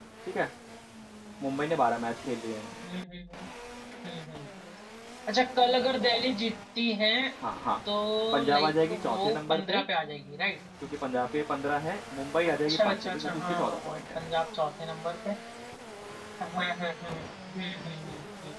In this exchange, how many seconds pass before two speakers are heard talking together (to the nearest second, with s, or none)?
9 s